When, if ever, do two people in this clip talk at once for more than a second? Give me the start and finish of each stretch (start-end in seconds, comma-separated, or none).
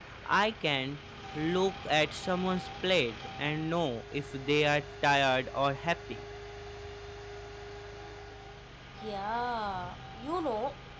none